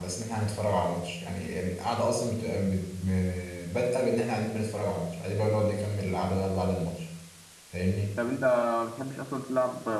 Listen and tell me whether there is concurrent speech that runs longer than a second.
No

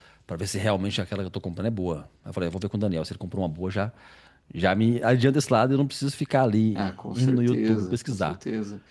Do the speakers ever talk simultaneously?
Yes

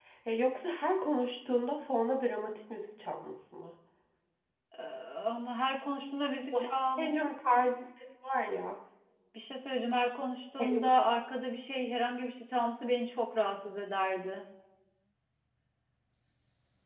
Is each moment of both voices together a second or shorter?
Yes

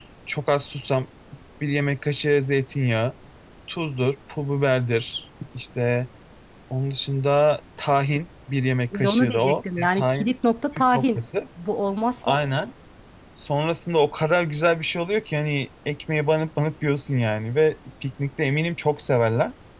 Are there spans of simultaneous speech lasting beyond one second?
Yes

